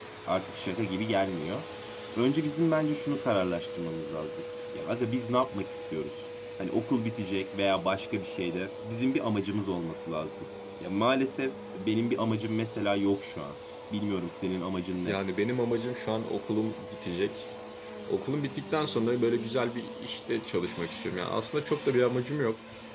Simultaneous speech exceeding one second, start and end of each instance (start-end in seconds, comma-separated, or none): none